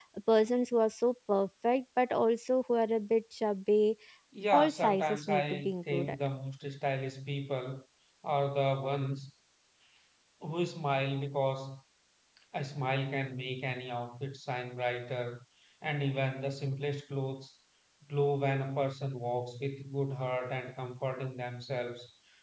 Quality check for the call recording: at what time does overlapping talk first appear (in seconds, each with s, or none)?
4.5 s